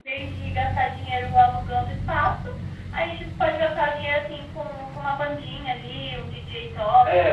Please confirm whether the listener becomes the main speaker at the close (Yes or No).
Yes